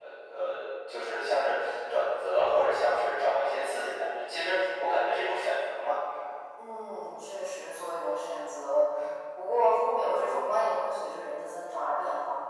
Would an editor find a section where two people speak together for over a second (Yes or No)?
No